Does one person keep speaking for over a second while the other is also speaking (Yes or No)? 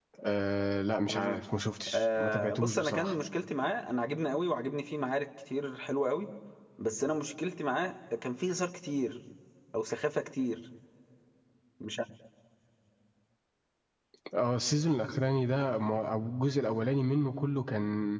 Yes